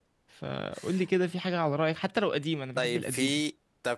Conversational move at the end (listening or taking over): taking over